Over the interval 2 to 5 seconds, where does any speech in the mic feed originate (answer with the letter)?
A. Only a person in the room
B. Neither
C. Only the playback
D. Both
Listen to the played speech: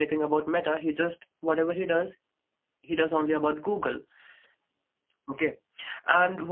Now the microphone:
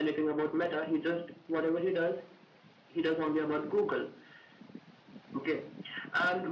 C